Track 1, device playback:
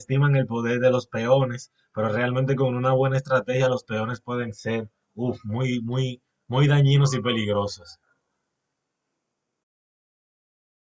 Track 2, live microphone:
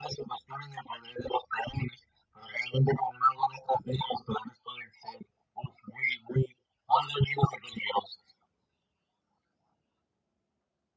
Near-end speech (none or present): none